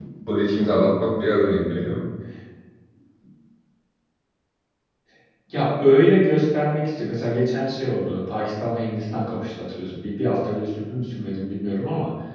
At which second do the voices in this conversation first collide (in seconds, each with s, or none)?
none